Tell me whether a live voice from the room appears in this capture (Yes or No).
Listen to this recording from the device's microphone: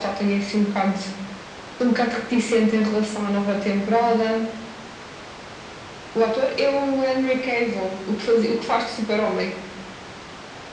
No